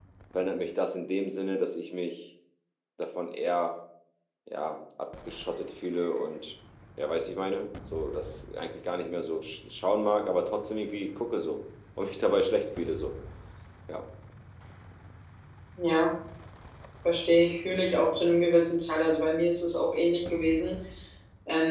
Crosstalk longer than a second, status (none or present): none